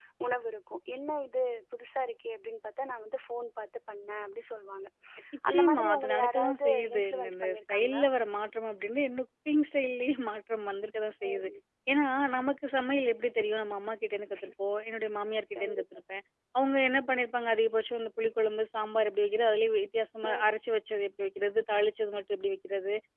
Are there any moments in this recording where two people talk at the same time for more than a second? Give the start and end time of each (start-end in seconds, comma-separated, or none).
5.5-8.0